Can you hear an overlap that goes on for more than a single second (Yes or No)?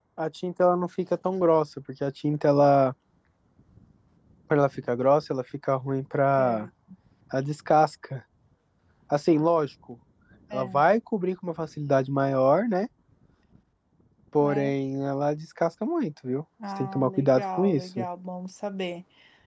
Yes